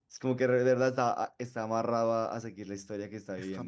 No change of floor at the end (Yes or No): No